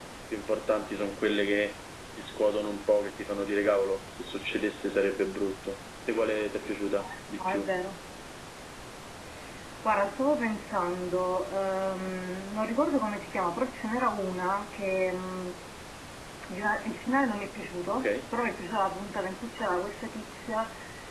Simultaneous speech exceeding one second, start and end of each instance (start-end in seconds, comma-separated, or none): none